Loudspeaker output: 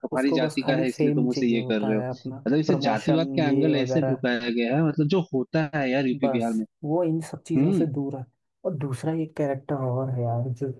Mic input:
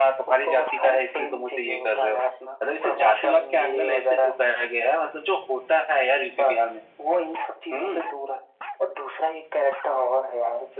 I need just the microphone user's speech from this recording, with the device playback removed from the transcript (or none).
none